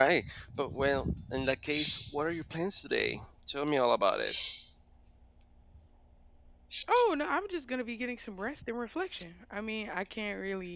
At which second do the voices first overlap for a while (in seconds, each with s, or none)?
none